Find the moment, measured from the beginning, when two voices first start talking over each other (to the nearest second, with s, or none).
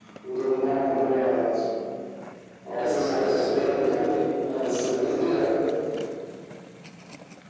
3 s